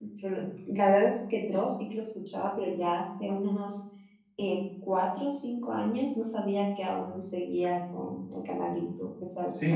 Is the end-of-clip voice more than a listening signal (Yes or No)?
Yes